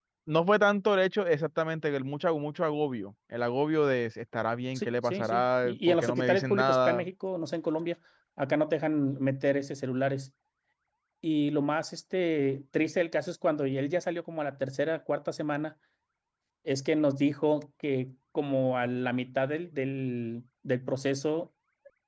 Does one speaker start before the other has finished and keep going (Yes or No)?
Yes